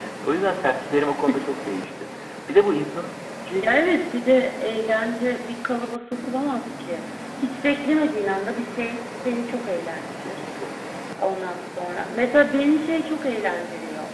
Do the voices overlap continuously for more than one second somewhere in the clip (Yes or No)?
No